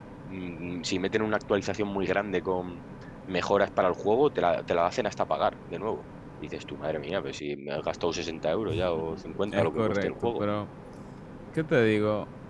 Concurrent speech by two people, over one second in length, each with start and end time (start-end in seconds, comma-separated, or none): 8.7-10.4